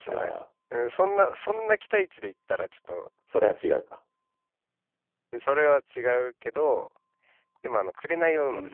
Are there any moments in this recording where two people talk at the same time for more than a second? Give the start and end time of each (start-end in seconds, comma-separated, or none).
none